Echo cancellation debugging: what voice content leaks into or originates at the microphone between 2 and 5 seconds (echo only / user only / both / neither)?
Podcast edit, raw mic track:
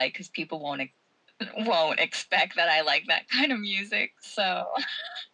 echo only